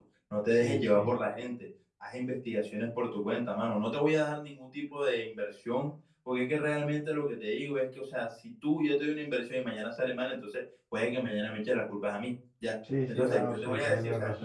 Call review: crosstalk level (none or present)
present